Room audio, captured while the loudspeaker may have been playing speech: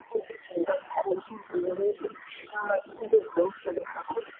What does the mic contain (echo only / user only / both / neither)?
echo only